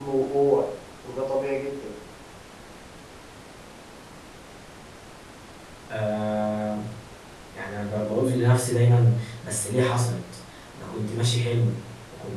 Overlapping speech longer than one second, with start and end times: none

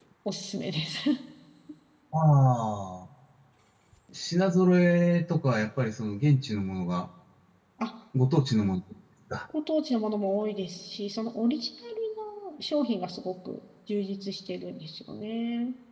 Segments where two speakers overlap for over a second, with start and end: none

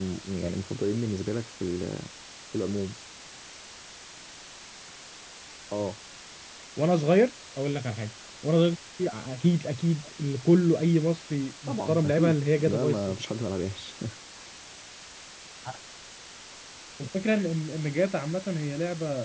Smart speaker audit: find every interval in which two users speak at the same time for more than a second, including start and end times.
11.7-13.2

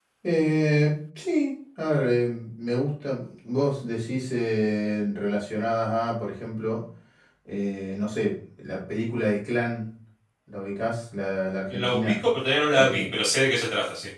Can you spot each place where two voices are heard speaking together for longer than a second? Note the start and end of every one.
none

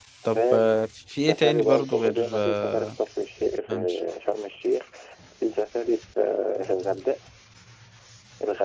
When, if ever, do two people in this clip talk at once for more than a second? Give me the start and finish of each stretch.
1.2-2.9

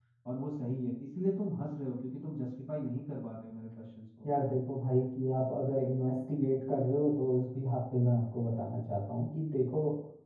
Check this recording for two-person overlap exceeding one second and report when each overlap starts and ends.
none

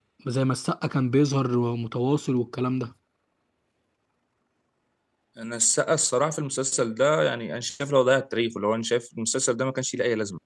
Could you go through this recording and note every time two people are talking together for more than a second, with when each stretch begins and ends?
none

